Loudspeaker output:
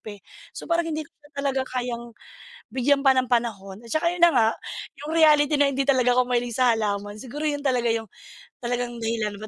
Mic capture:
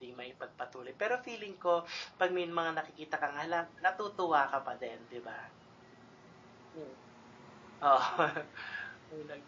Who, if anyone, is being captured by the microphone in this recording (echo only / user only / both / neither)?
user only